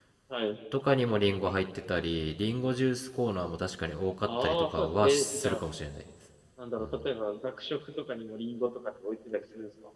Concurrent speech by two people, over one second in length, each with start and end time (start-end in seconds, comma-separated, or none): 4.2-5.6